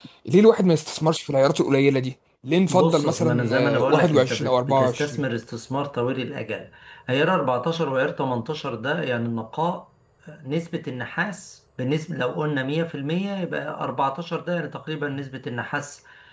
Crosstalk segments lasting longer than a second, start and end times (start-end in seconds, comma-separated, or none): 2.7-5.2